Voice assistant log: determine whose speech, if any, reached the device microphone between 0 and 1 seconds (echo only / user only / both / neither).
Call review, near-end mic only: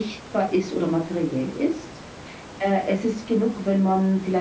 echo only